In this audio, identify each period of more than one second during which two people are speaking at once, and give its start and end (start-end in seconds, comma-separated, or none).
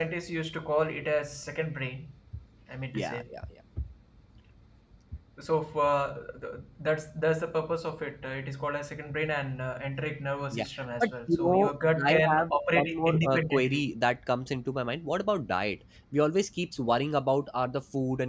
11.0-13.9